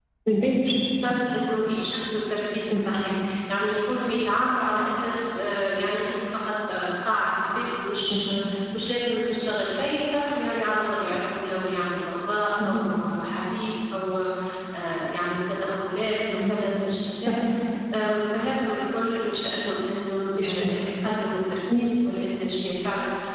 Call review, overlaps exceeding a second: none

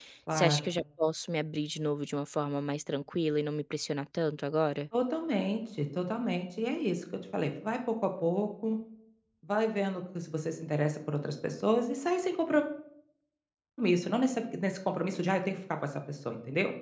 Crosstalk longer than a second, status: none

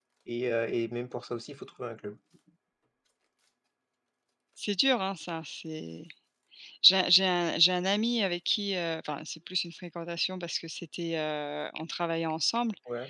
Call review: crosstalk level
none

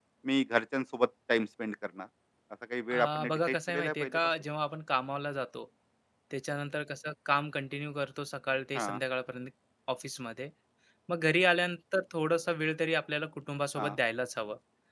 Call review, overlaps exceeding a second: present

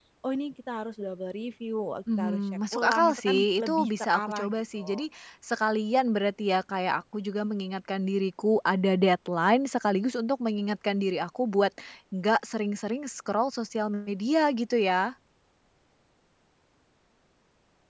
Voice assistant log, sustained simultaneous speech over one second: present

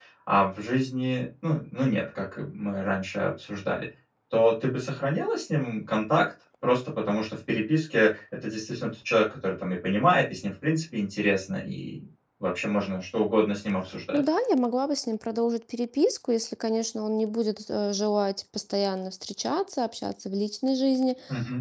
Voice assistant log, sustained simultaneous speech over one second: none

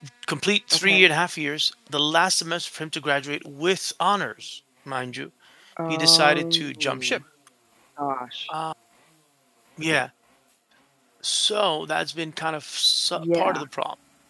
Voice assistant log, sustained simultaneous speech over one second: present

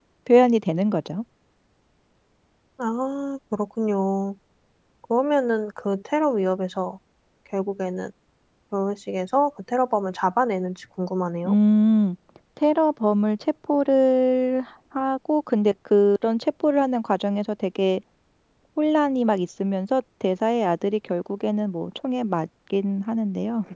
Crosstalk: none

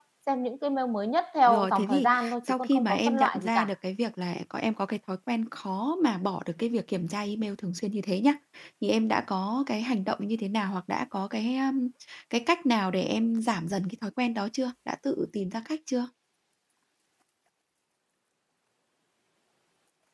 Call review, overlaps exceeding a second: present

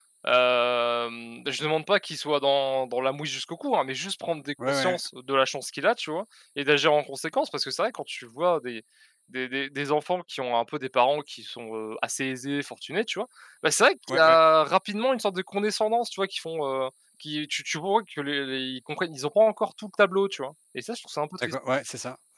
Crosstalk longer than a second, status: none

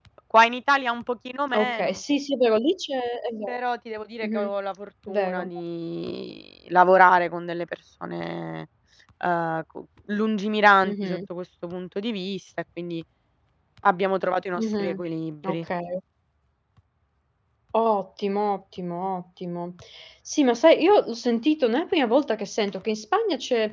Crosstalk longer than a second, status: none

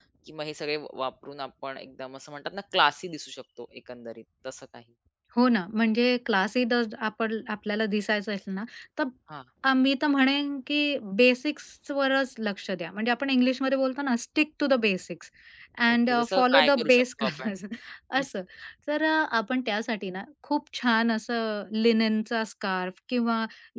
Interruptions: present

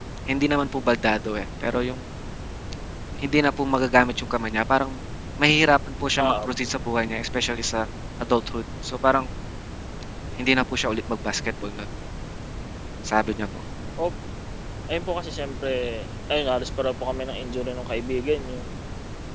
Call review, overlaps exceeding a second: none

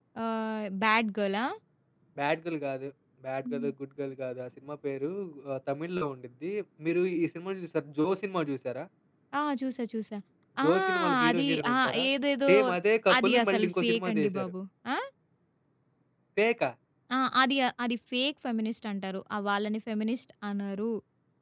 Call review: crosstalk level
present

